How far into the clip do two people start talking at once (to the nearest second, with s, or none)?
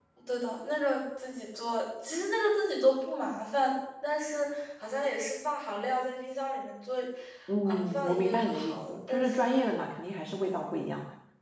8 s